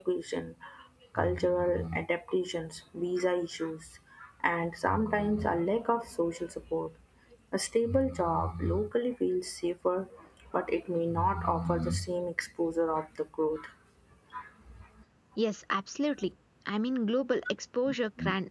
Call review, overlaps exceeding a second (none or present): none